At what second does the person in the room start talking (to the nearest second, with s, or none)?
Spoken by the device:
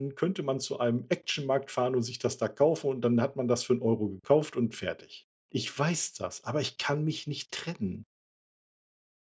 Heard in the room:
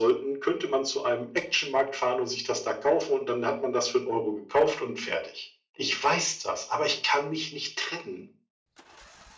none